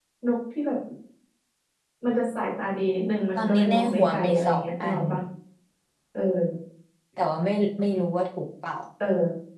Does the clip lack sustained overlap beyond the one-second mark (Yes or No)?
No